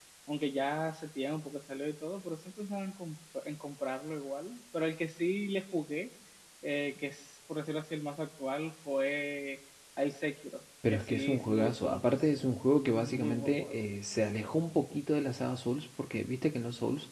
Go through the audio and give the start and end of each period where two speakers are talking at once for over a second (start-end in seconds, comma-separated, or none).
10.9-13.8